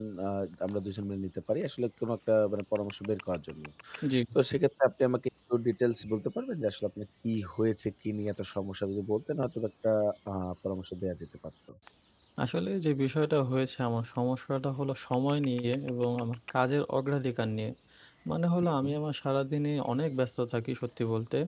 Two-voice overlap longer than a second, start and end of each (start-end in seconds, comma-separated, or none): none